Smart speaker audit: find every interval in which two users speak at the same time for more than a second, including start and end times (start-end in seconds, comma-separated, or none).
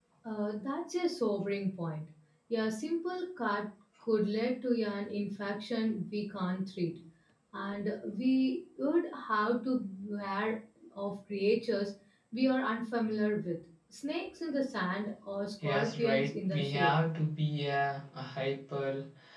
15.6-16.9